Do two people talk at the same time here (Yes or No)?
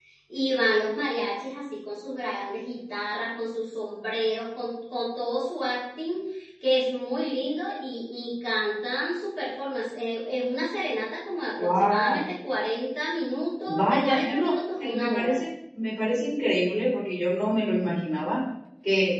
Yes